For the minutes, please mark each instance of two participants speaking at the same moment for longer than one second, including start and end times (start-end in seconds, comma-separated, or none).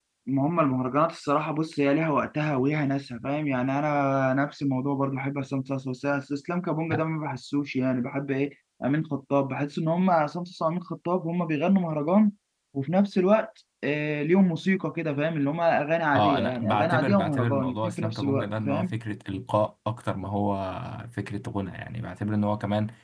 16.2-18.9